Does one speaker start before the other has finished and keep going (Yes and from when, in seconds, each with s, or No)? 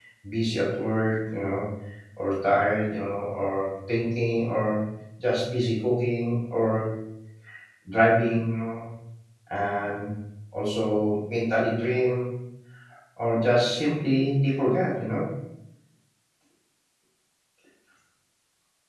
No